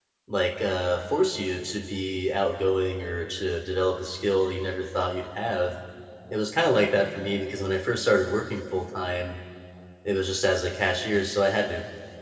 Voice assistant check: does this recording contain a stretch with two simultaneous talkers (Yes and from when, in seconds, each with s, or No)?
No